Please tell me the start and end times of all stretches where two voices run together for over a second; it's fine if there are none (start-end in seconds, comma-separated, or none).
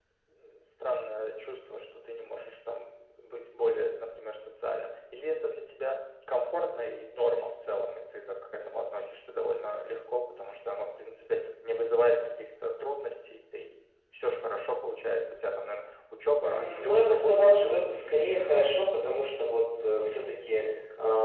16.4-17.8